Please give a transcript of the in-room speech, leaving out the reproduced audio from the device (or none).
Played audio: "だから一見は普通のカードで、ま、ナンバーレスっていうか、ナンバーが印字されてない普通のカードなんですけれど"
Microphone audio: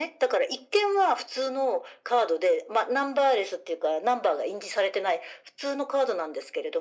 none